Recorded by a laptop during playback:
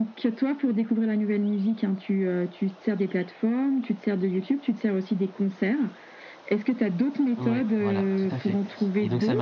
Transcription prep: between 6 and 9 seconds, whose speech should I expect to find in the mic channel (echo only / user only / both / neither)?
both